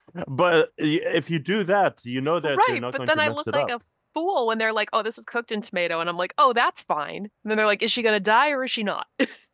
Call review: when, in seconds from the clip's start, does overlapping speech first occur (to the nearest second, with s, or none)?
2 s